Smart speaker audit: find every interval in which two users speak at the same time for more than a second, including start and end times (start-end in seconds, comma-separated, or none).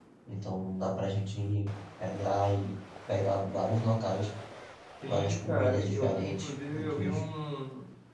5.1-7.2